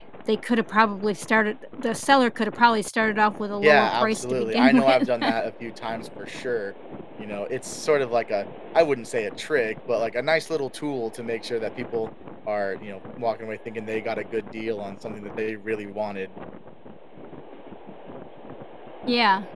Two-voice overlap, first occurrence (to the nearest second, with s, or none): 4 s